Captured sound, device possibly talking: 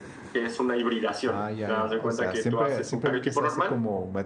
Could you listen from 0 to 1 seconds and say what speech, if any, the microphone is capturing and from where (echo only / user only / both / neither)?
echo only